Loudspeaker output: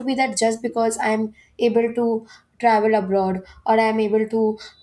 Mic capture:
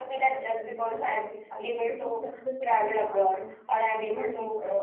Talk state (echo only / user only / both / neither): both